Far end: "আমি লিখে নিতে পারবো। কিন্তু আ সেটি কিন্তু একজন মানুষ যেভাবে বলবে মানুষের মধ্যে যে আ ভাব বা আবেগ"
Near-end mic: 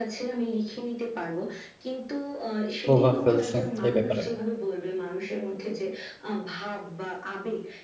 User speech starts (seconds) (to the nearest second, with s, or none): 3 s